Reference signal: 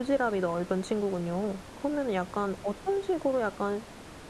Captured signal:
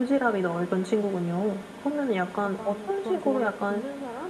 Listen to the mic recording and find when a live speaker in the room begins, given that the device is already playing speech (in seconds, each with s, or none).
2.4 s